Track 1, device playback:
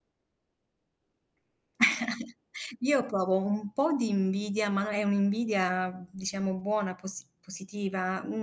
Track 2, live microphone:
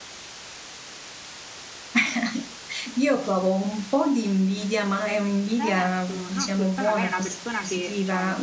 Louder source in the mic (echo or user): echo